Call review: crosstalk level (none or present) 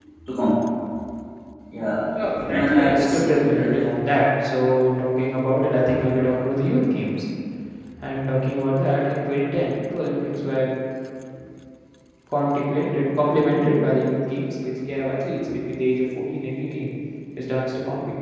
present